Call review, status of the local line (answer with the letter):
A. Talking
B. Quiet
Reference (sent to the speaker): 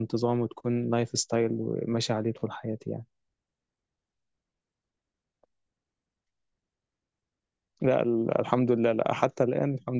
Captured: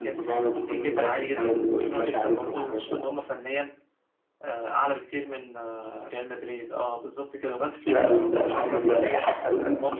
A